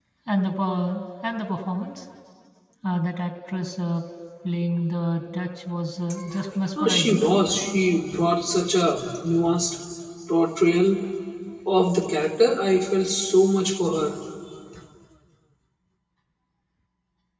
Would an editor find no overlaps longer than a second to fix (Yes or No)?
Yes